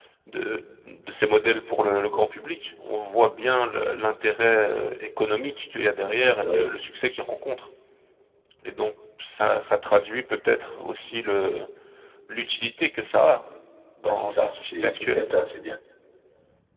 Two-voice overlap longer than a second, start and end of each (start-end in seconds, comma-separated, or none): 14.0-15.2